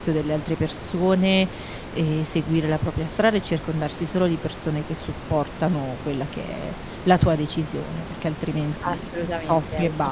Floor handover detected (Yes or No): Yes